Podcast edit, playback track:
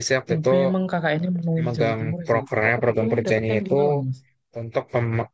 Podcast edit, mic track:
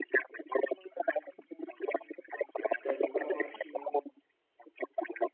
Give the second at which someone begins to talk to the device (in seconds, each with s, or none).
2.8 s